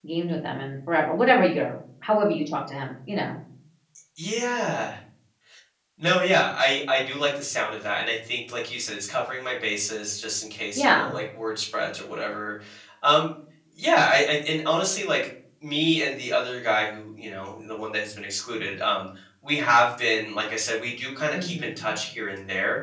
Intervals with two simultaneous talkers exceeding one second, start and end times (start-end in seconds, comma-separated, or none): none